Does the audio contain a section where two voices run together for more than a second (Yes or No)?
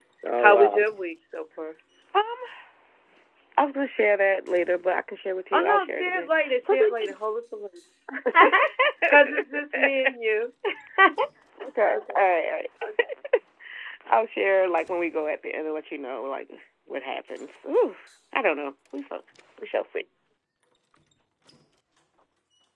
Yes